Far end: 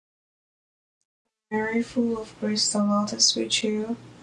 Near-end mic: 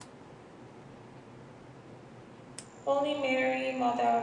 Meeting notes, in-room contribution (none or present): present